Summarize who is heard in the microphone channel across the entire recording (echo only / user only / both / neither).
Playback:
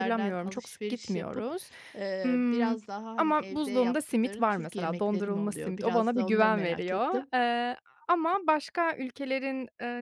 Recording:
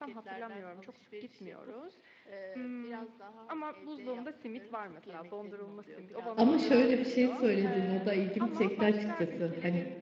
both